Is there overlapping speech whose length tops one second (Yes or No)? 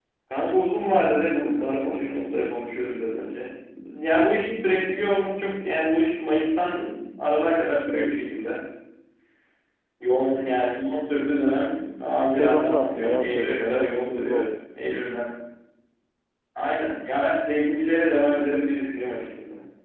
Yes